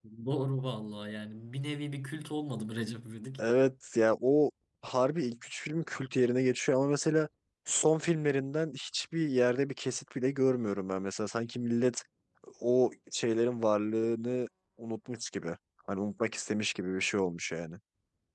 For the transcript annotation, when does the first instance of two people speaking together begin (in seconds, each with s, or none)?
none